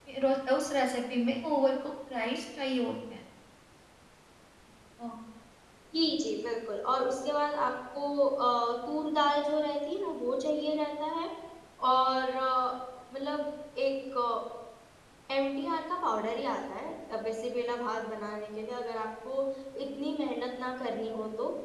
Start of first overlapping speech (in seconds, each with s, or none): none